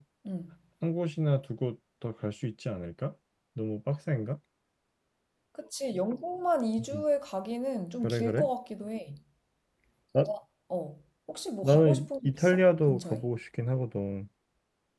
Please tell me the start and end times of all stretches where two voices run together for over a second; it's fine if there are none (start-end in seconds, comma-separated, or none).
11.6-13.2